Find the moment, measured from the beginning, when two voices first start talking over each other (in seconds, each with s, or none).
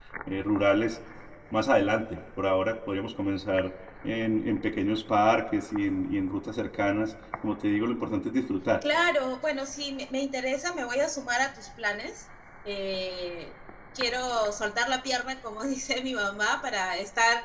none